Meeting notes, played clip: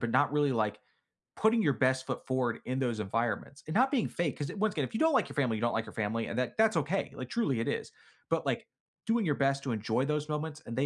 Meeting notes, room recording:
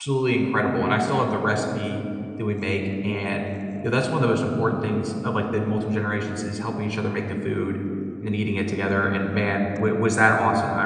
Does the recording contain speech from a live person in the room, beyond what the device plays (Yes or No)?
Yes